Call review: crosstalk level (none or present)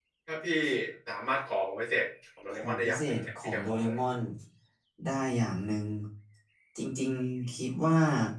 present